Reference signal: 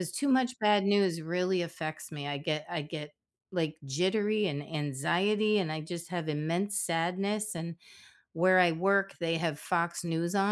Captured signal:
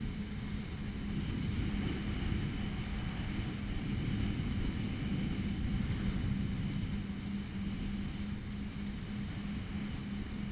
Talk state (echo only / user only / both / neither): neither